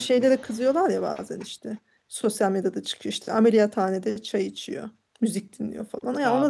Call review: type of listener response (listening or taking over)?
listening